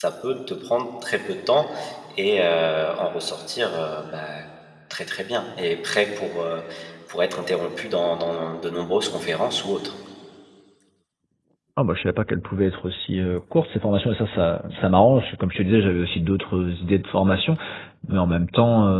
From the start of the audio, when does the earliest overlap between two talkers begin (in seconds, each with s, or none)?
none